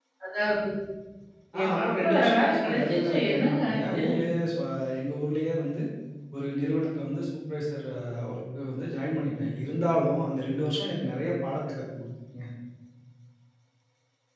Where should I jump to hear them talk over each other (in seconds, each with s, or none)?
1.6 s